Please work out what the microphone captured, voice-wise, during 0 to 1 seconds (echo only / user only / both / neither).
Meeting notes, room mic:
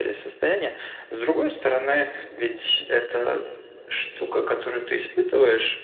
echo only